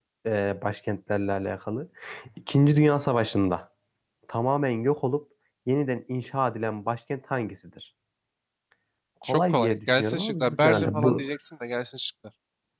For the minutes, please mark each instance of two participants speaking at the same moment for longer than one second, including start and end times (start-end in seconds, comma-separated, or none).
9.2-11.3